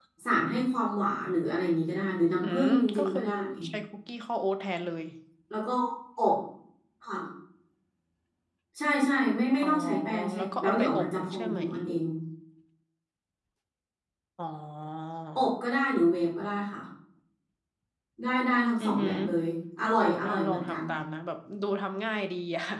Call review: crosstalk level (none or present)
present